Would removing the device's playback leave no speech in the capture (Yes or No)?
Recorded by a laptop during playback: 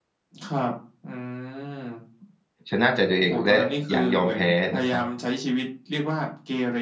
No